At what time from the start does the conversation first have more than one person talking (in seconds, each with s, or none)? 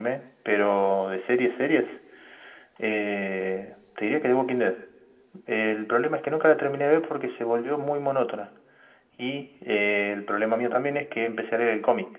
none